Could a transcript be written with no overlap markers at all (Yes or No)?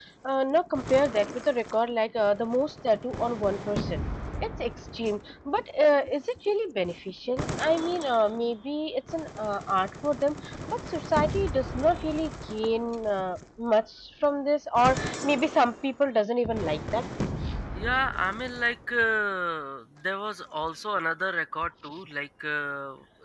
Yes